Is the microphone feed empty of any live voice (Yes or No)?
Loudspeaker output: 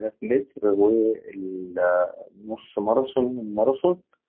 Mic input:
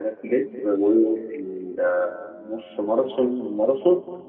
Yes